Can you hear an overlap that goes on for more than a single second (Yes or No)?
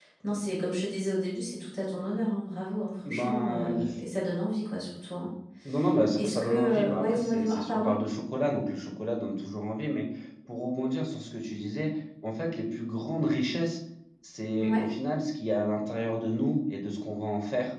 Yes